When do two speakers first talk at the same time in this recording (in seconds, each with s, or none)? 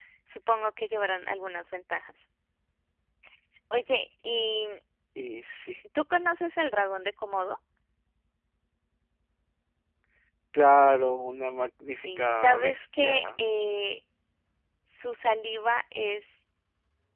12.1 s